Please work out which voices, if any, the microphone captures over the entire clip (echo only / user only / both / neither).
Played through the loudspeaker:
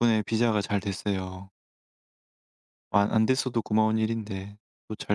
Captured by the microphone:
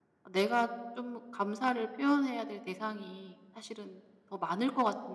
user only